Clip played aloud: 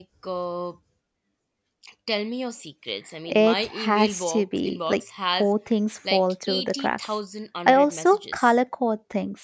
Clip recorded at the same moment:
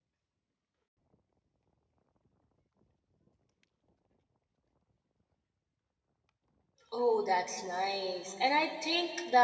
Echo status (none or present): none